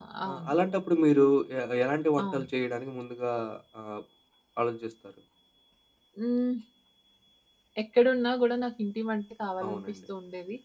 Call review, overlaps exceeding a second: none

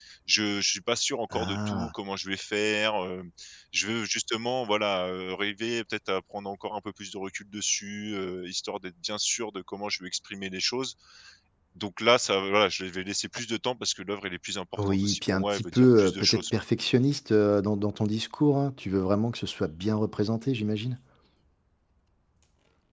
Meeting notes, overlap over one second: present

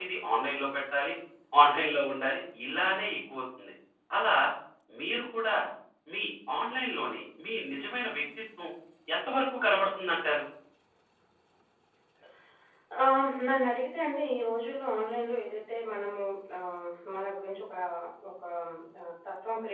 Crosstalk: none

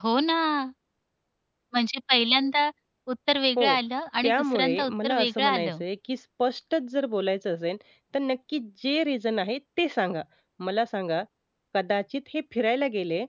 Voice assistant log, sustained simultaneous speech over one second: present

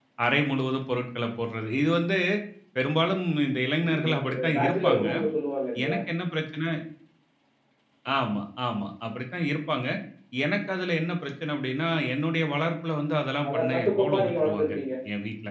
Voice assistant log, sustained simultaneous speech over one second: present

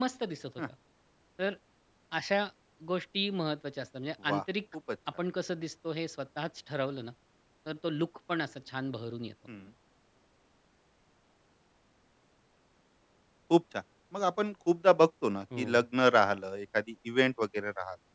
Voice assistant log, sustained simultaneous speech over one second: none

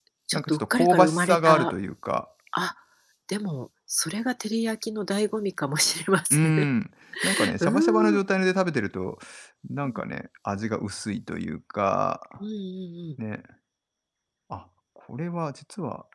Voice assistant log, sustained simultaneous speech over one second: present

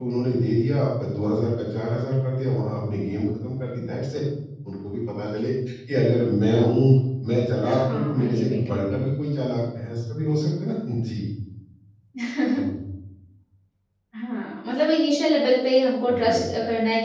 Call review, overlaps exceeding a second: present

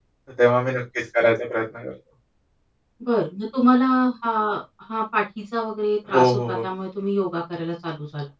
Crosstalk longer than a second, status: none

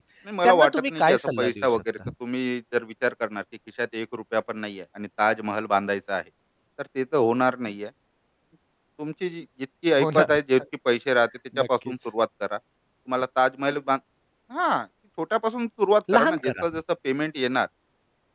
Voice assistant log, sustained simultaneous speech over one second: present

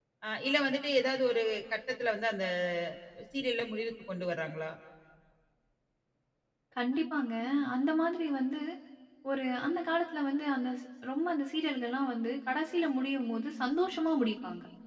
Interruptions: none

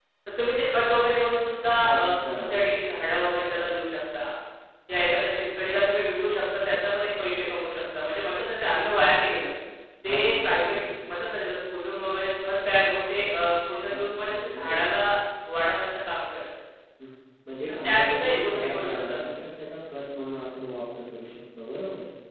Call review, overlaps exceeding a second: present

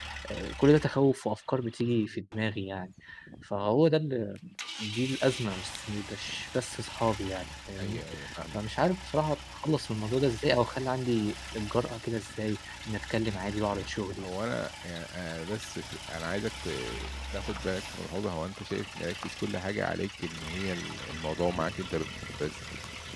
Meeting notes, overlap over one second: none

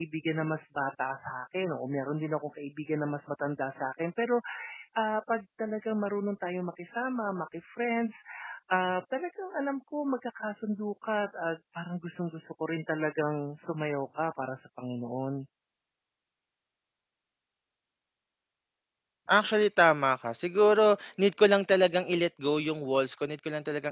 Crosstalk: none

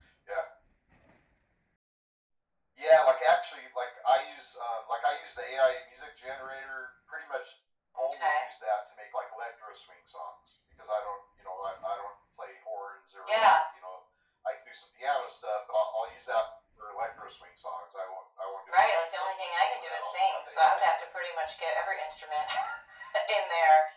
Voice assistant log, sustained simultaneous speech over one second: present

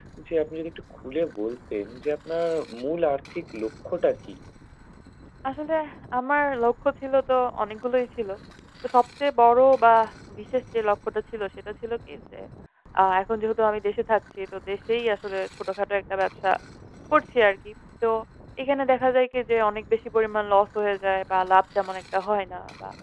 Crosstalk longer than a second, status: none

